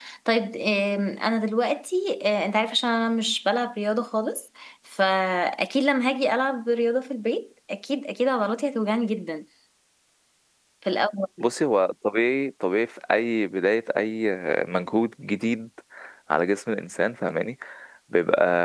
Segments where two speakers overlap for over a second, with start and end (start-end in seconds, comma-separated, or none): none